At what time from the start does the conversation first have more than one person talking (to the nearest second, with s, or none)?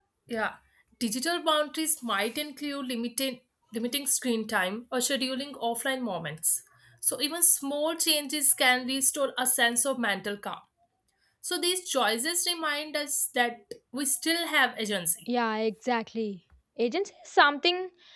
none